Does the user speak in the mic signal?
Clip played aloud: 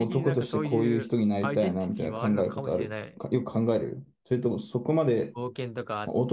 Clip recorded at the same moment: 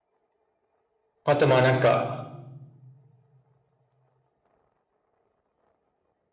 Yes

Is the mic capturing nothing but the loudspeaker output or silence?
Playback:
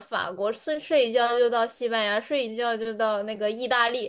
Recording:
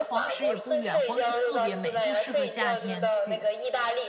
No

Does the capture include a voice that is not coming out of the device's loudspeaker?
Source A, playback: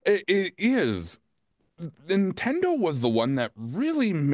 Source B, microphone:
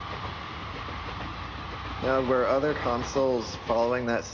Yes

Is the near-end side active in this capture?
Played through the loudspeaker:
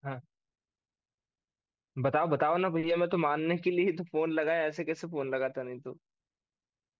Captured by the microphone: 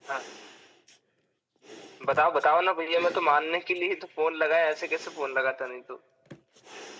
No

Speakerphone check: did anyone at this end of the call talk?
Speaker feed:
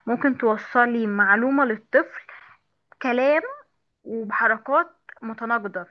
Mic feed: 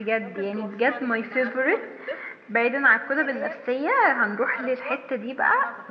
Yes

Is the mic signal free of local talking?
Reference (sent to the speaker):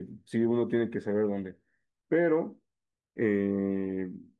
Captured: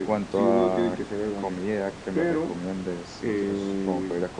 No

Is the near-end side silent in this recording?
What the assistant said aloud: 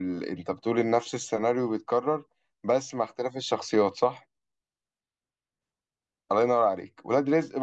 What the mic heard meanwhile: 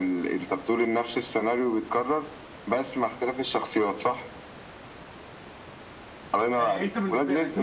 No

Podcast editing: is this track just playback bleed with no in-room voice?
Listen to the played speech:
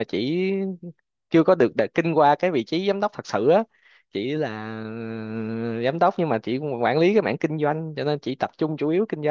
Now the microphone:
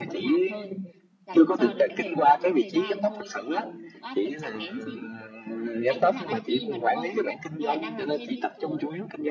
No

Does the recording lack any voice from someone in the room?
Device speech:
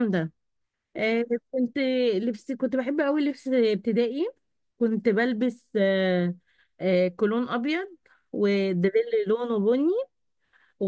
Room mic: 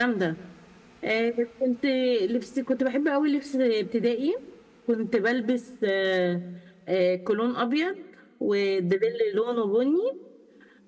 Yes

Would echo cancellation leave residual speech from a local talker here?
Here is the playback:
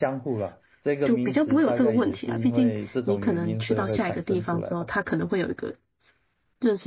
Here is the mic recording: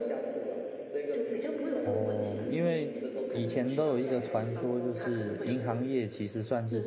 Yes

